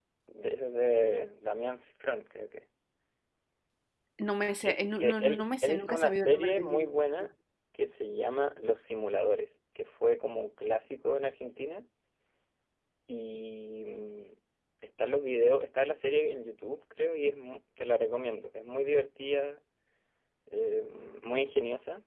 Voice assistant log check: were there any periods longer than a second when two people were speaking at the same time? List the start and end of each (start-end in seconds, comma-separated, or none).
4.7-6.9